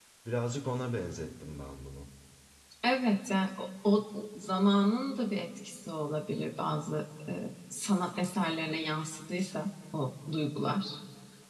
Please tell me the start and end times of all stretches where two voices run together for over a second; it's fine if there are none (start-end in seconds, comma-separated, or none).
none